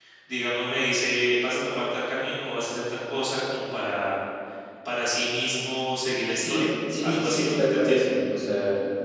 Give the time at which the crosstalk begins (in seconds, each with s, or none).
6.3 s